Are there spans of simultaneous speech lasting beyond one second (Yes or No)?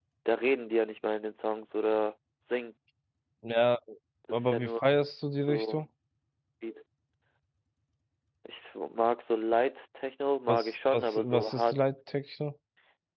Yes